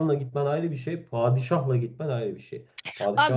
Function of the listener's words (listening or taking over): taking over